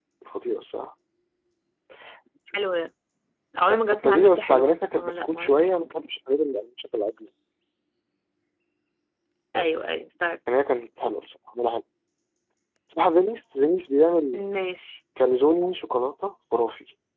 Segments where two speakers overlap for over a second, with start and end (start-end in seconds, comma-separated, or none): 3.7-5.5